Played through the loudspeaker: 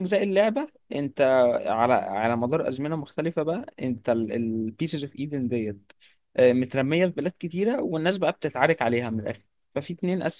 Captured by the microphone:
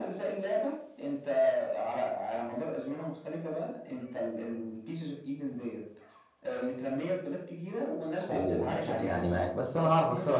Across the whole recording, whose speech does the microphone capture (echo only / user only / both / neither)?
both